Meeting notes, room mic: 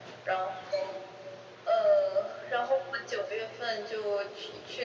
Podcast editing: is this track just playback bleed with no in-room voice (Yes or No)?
Yes